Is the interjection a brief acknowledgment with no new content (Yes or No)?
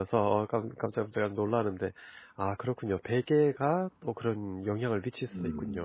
No